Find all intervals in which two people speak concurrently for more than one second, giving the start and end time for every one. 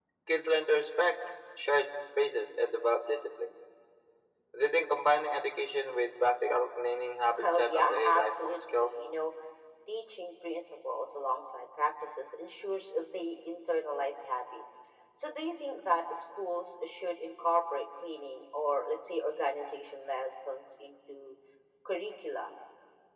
7.3-8.9

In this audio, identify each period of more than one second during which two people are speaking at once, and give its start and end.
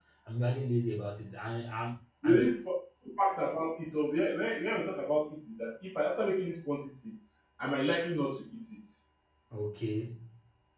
none

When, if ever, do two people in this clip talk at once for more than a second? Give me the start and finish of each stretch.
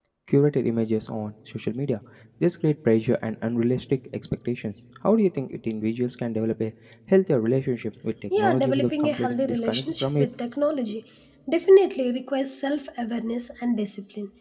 8.4-10.3

